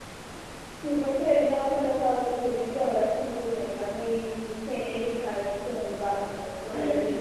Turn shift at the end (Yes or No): Yes